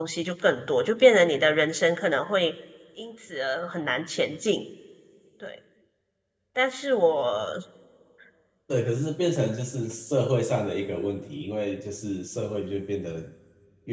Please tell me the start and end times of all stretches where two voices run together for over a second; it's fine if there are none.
none

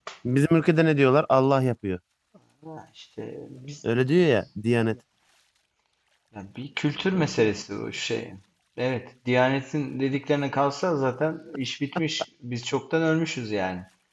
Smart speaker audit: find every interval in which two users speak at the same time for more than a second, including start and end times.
none

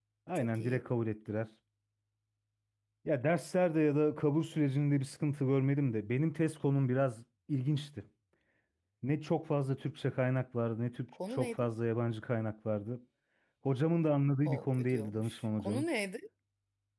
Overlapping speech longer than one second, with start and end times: 14.4-15.8

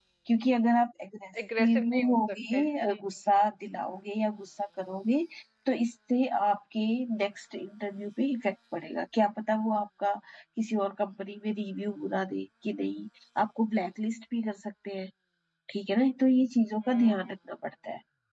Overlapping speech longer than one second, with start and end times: 1.6-3.0

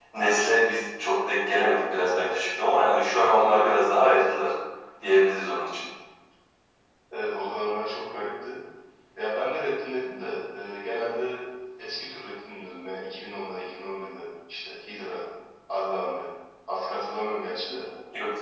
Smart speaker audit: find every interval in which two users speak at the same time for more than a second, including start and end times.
none

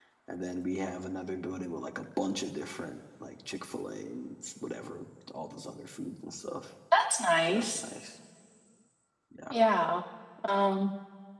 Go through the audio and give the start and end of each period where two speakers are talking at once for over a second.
none

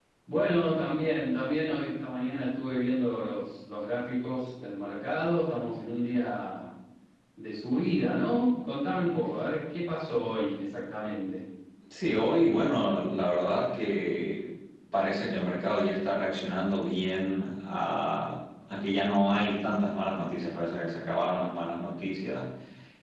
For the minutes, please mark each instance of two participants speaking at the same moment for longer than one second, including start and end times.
none

